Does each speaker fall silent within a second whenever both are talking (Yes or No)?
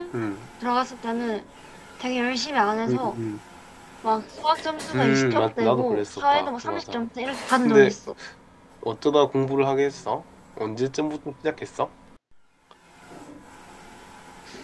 No